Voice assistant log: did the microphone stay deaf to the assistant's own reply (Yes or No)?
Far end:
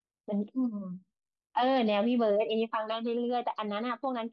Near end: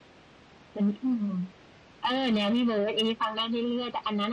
No